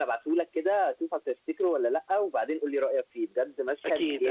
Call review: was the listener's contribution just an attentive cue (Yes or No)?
No